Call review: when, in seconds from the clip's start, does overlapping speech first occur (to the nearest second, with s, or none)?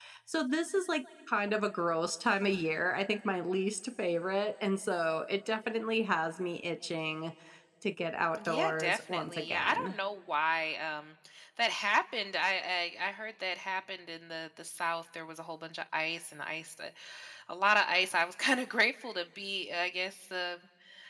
8 s